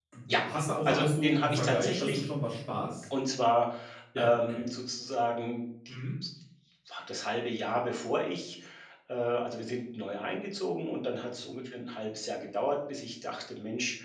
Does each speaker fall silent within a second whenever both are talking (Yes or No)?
No